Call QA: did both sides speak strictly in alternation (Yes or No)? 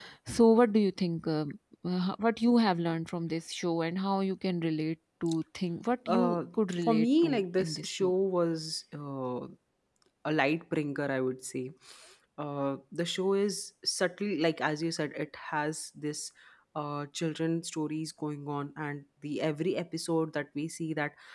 No